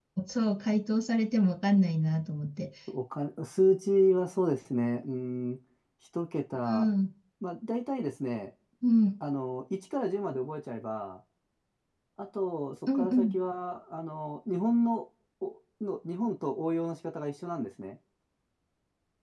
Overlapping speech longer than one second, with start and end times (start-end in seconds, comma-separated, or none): none